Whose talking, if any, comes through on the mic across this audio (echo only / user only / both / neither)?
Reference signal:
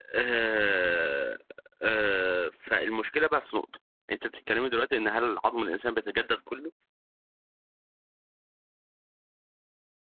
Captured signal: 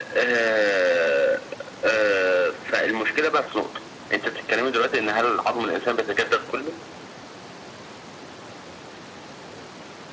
echo only